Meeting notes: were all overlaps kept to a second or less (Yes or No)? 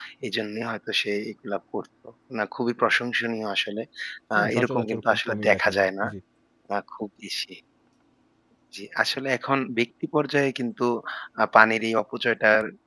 No